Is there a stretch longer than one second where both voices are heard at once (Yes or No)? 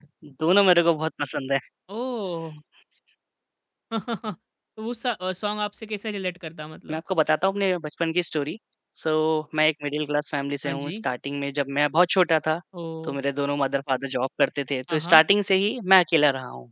No